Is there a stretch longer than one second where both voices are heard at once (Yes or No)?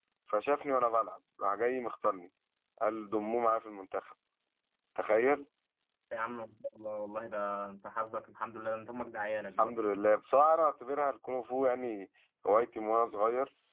No